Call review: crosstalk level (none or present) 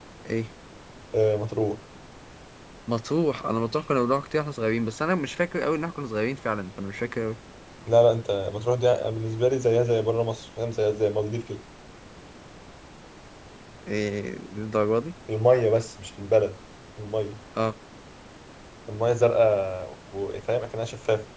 none